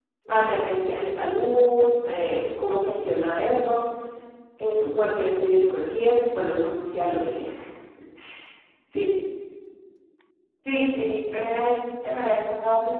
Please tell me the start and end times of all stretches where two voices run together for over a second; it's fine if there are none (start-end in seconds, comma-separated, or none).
none